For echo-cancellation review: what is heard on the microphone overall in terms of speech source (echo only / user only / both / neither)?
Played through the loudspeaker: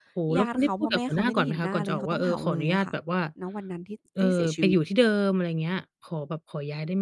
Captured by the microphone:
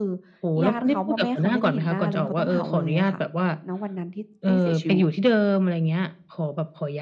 echo only